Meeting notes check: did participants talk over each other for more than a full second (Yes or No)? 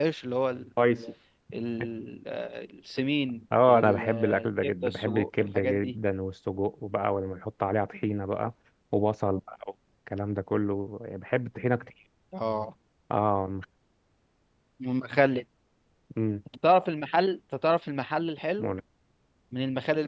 Yes